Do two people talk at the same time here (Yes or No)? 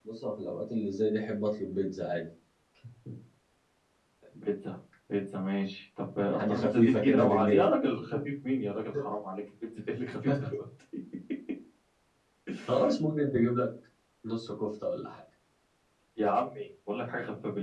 Yes